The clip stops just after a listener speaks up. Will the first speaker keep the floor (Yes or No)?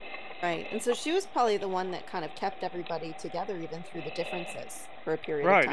No